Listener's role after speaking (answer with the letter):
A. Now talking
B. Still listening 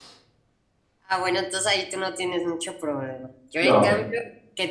B